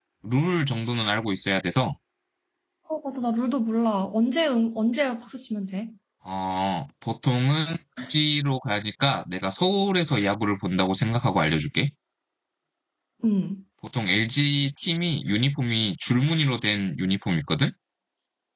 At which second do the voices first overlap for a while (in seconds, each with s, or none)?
none